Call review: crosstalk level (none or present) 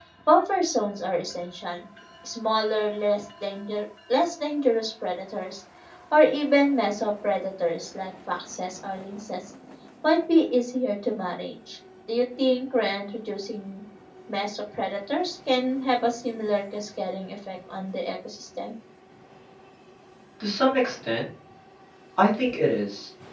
none